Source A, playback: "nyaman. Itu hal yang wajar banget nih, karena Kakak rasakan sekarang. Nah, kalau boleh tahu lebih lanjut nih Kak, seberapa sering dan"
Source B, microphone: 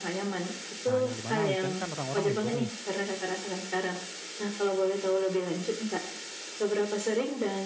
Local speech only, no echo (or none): Nah, yang di mana weekend kan orang-orang libur nih.